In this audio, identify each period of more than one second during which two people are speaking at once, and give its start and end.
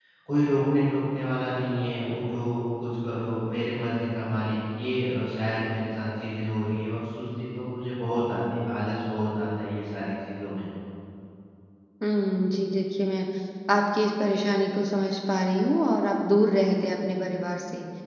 none

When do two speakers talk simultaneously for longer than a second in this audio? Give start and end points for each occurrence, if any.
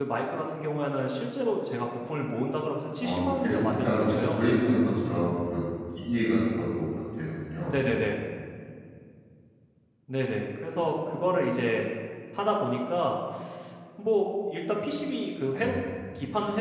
3.0-4.4

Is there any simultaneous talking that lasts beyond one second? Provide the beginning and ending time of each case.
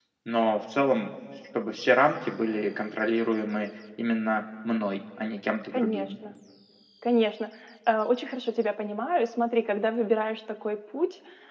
none

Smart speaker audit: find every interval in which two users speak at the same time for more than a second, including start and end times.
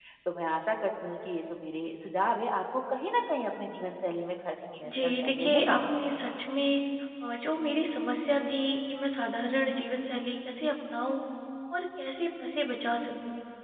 4.9-6.3

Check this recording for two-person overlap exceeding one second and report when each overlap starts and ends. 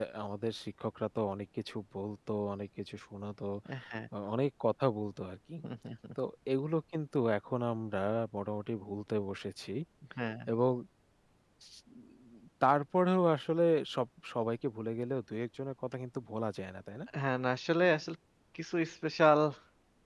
none

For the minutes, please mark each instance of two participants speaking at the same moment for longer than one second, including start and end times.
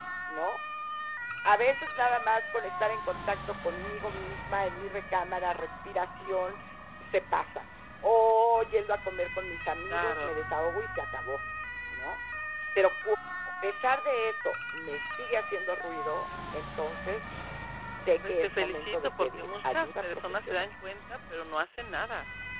18.3-20.6

